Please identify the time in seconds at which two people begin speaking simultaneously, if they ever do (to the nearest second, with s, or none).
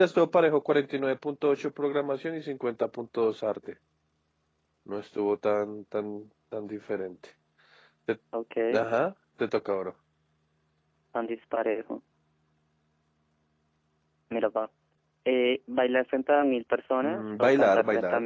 17 s